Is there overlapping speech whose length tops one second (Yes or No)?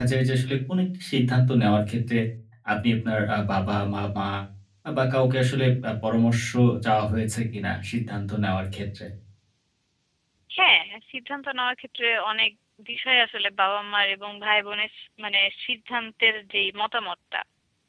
No